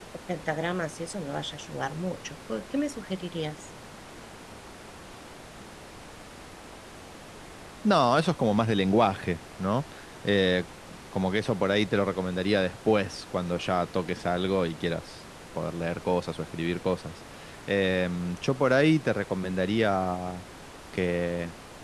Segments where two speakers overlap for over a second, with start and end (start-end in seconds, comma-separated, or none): none